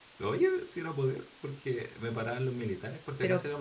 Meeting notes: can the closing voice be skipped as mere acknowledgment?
Yes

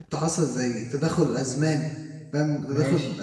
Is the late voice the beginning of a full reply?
No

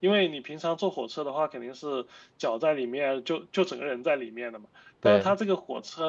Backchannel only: Yes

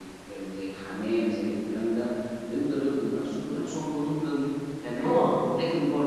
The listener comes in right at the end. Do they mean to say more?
No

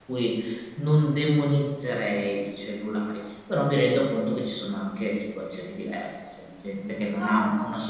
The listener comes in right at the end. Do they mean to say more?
No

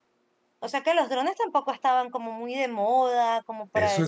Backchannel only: No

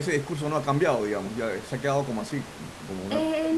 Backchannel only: No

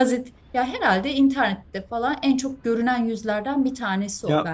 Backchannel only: No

